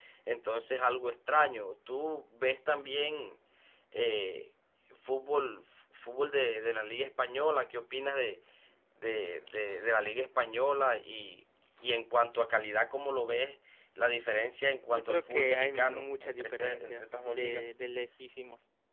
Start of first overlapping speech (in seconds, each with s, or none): 14.9 s